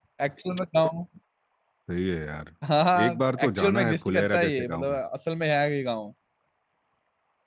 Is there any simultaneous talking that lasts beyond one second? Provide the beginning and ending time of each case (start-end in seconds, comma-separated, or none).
3.0-5.0